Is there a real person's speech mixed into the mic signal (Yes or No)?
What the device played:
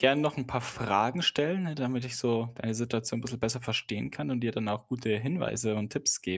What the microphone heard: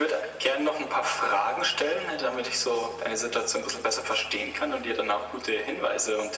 No